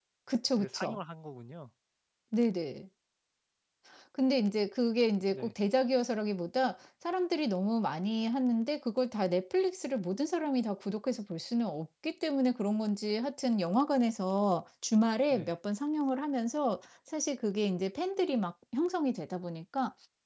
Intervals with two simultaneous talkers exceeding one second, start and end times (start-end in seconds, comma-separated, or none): none